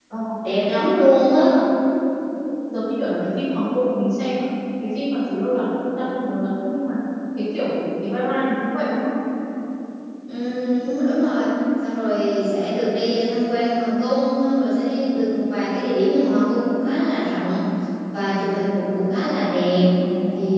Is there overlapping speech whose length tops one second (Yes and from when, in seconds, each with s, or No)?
No